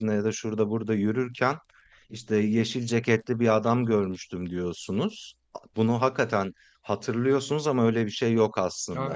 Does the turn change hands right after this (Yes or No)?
Yes